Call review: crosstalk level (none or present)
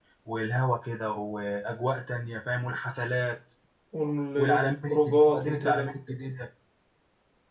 present